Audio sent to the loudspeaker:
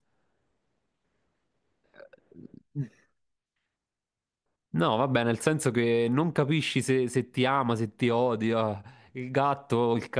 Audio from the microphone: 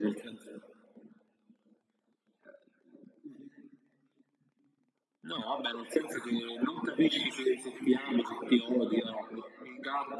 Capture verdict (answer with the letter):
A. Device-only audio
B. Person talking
A